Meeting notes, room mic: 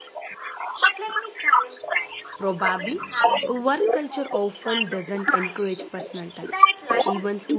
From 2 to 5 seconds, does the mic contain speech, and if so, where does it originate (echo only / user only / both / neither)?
both